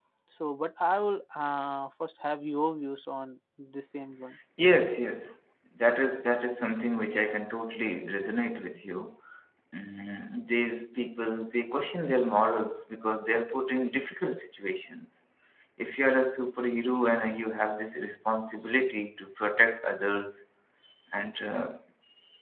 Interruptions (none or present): none